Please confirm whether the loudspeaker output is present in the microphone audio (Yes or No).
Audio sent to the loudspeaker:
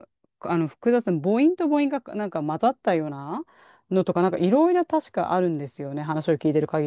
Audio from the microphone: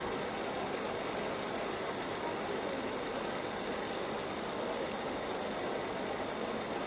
No